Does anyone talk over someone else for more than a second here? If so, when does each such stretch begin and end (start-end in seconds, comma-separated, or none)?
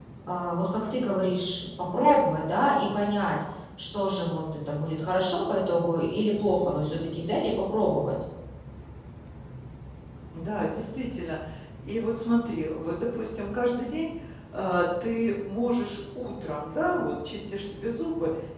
none